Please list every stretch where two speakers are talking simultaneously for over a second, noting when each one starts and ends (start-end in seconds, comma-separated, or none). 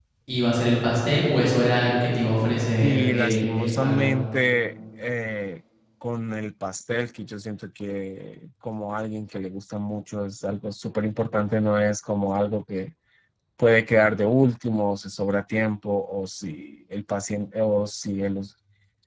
2.8-4.2